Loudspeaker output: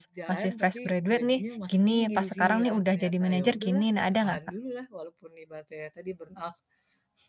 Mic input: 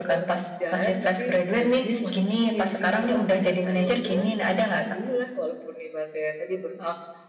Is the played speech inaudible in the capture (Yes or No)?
No